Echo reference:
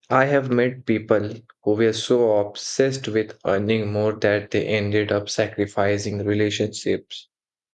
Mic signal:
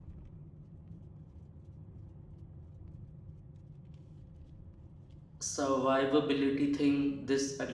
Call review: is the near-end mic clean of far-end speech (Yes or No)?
Yes